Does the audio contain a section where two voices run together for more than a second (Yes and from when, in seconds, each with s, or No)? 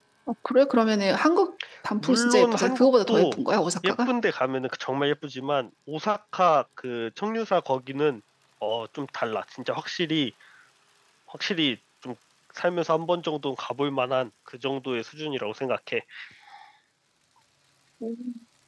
Yes, from 2.0 s